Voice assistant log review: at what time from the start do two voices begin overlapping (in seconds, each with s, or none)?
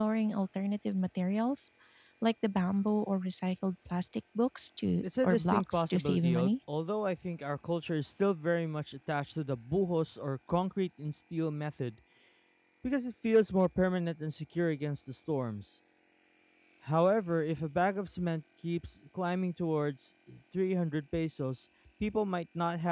5.0 s